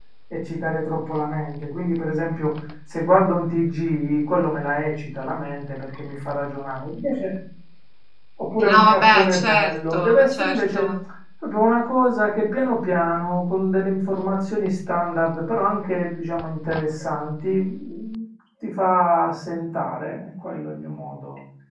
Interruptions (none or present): present